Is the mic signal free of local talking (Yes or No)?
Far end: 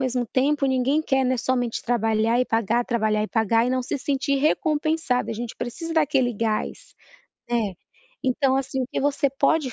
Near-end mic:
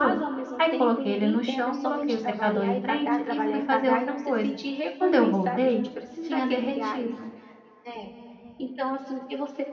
No